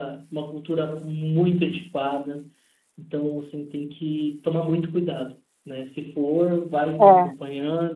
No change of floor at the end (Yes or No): Yes